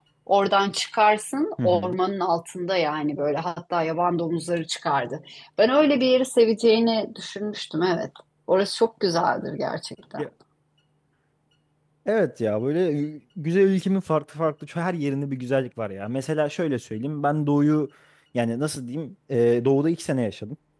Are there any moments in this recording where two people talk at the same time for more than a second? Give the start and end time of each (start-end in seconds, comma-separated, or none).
none